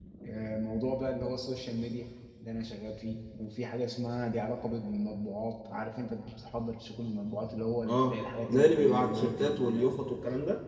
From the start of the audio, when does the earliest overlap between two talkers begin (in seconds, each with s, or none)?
7.9 s